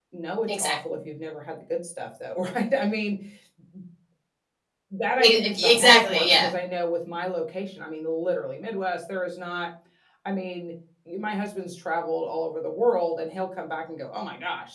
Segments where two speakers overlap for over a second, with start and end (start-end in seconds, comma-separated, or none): 5.3-6.5